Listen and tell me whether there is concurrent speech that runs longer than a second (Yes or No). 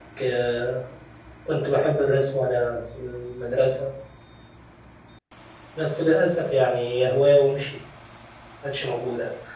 No